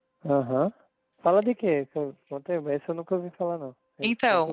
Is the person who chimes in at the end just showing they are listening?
No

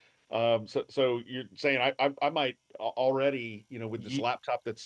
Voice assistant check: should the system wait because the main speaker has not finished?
Yes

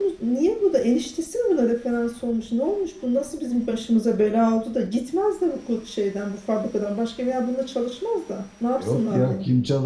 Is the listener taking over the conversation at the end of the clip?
Yes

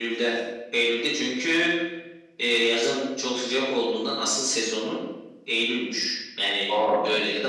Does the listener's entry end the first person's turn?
No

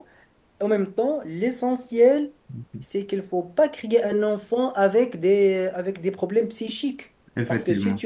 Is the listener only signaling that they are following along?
Yes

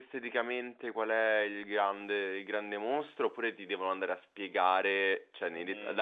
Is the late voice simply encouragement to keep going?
Yes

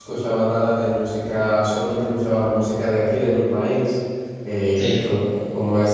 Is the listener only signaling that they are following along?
Yes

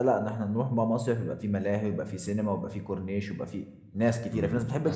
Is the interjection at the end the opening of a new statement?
Yes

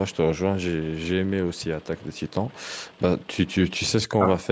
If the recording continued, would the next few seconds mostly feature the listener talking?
No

